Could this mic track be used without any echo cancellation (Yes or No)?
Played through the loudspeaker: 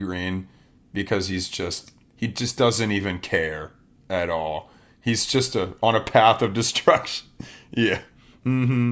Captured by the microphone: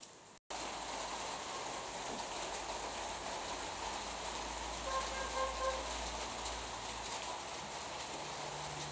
Yes